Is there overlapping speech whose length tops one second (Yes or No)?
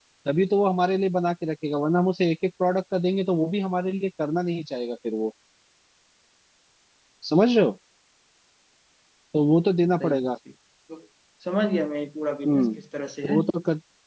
No